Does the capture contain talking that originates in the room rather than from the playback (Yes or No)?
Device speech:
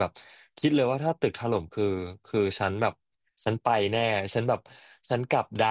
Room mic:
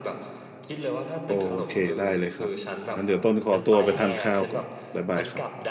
Yes